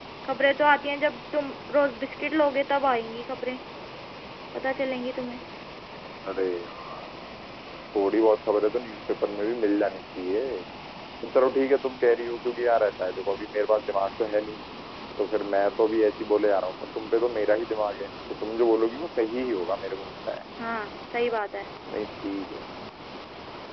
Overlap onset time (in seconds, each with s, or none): none